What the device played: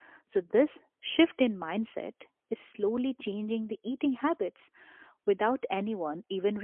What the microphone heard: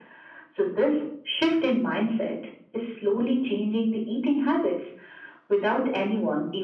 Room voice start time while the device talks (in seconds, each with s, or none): none